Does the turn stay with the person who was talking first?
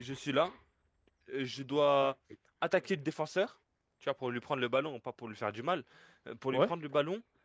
Yes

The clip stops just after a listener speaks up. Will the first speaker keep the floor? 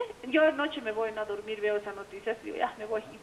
Yes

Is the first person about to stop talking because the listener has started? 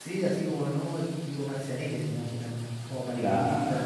Yes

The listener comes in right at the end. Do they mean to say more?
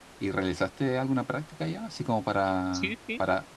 No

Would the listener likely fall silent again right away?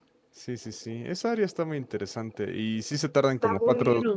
Yes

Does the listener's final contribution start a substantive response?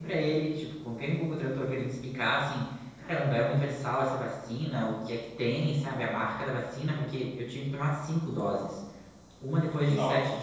No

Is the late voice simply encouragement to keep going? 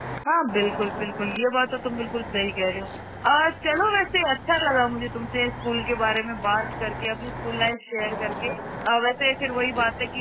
Yes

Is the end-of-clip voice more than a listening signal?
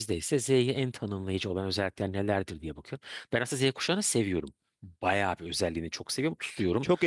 Yes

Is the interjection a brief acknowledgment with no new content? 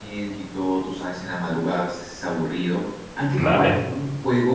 Yes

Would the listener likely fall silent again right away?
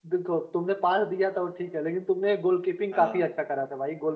Yes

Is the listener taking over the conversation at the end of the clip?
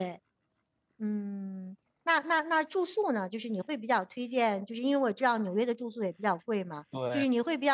No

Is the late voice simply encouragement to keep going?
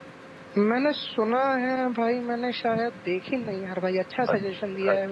No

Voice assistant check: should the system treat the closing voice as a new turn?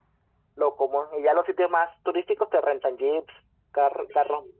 Yes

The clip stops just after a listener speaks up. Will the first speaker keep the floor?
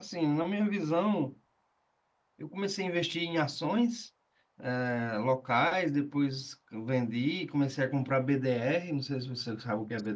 No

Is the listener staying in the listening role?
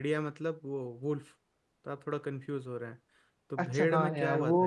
No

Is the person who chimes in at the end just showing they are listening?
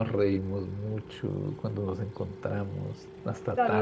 No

